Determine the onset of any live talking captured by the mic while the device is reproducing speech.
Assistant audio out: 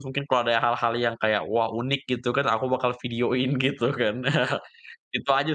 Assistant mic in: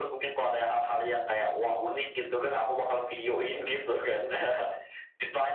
none

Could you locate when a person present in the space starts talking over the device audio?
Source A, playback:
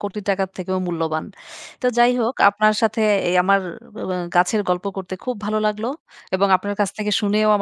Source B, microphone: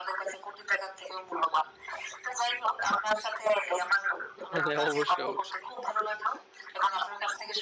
4.5 s

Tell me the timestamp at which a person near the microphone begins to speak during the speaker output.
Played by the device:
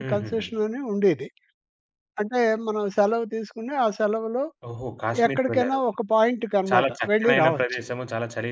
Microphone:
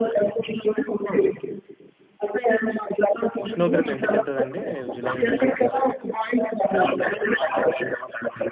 3.4 s

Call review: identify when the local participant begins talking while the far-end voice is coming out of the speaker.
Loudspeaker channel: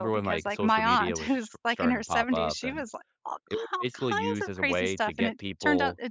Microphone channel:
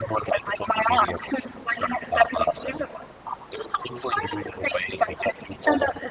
none

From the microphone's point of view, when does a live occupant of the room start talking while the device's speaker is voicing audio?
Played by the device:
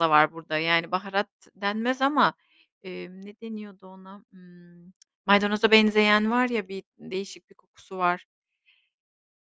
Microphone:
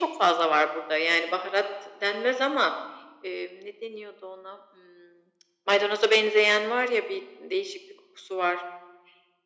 none

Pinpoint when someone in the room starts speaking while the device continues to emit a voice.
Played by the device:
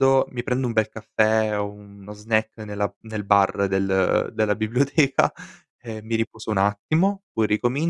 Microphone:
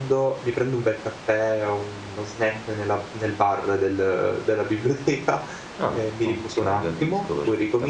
5.8 s

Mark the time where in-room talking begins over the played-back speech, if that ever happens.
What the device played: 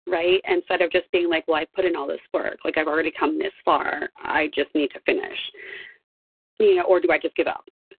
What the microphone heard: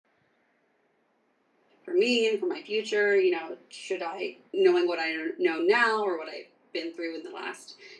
1.8 s

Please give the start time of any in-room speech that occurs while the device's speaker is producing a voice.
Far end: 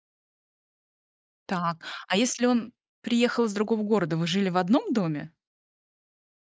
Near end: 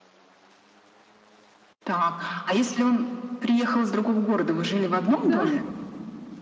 5.1 s

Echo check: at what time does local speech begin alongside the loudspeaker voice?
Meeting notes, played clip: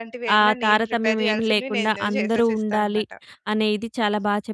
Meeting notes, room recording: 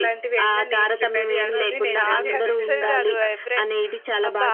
1.6 s

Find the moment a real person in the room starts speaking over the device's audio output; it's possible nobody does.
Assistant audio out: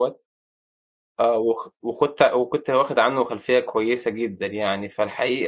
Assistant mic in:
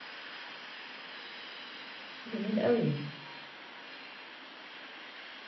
2.2 s

